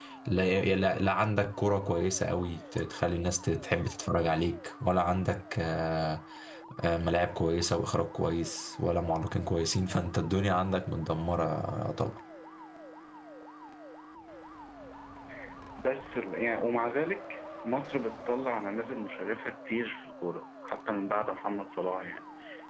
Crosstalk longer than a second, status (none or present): none